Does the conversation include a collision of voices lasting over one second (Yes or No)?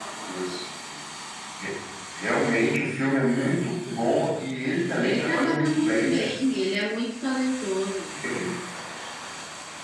Yes